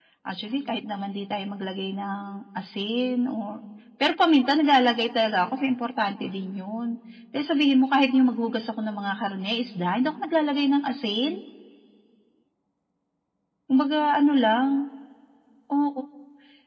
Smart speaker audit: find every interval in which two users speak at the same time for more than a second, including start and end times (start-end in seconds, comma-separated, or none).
none